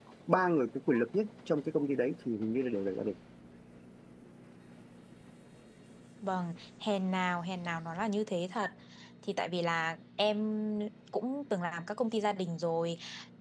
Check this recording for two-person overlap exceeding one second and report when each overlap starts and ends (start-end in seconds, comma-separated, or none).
none